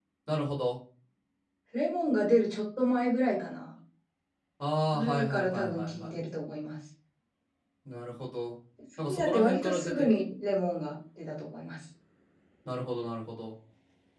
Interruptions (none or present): present